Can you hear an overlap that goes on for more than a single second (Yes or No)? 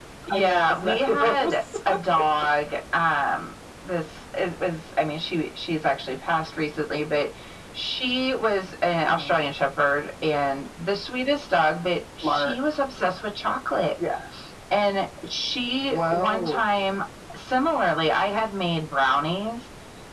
Yes